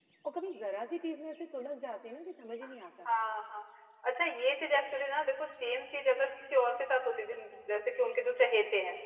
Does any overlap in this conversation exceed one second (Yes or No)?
No